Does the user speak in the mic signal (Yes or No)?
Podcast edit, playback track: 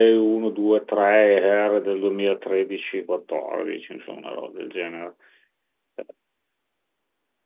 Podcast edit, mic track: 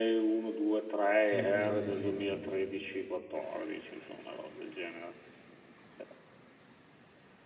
Yes